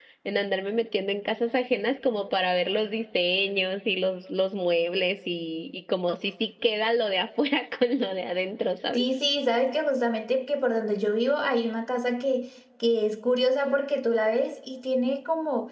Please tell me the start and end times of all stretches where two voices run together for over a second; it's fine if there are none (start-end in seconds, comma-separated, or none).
none